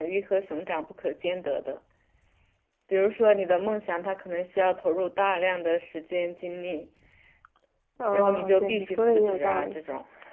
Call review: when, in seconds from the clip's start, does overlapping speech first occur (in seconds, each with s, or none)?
8.1 s